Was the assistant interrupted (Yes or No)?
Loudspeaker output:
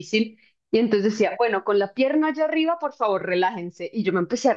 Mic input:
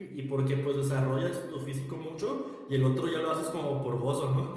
Yes